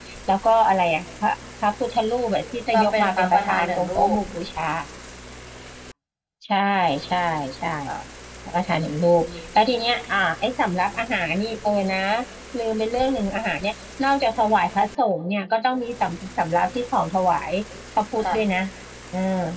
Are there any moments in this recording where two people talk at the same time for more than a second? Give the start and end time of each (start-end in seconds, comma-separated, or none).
2.7-4.2